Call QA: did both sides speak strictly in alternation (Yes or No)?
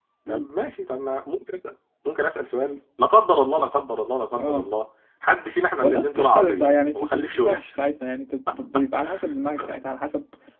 No